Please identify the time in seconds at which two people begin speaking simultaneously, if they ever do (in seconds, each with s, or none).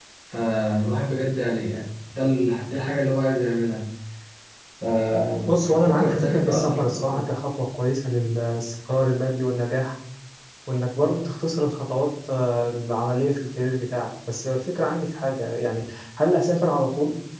5.5 s